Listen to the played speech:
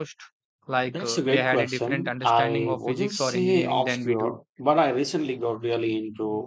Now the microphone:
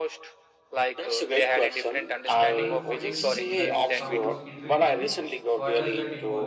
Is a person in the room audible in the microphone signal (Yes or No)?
Yes